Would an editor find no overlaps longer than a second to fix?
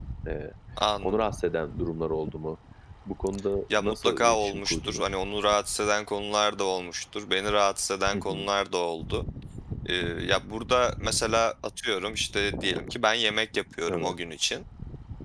No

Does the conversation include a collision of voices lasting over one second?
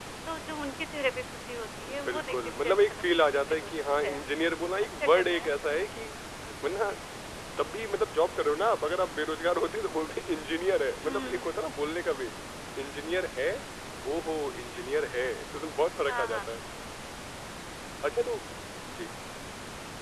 Yes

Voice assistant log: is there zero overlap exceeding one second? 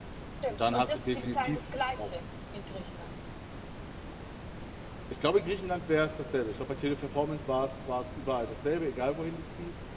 No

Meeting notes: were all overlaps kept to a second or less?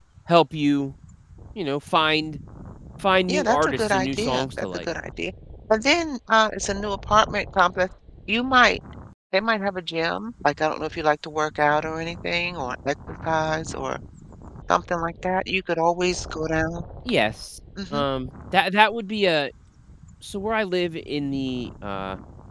No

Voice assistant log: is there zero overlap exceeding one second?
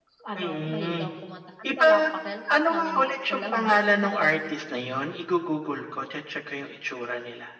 No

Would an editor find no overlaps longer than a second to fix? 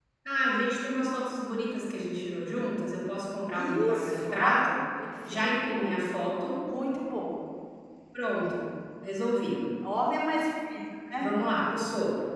No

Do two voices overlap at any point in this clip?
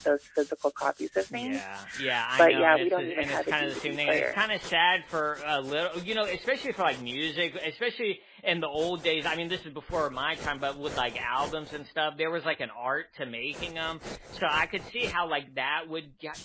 Yes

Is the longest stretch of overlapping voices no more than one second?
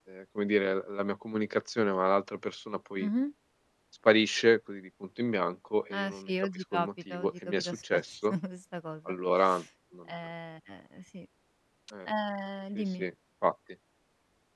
No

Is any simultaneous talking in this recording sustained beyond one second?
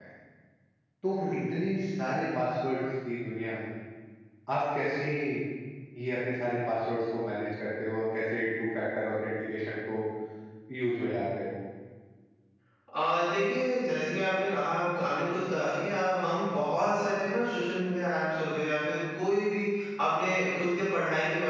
No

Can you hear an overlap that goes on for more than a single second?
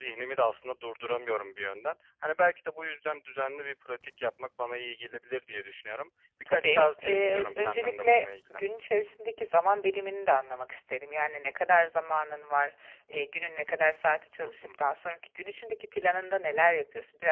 Yes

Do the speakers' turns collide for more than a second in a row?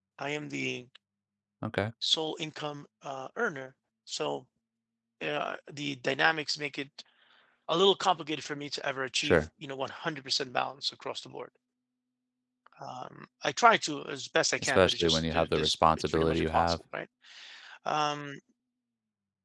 Yes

